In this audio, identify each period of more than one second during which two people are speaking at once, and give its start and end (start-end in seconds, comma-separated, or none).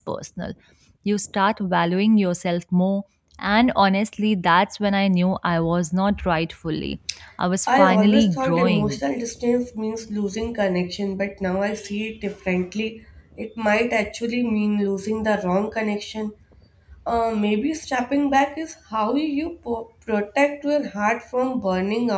7.8-9.0